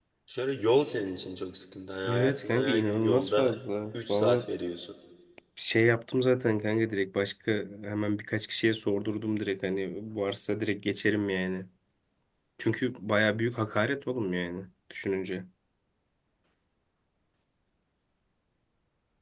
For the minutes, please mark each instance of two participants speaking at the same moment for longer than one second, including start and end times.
2.0-3.5

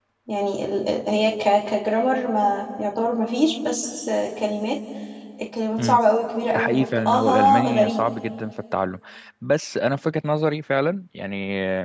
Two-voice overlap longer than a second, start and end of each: 6.5-8.0

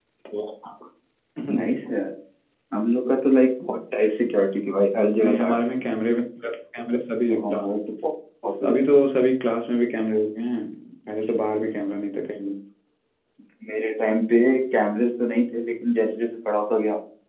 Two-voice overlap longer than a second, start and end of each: none

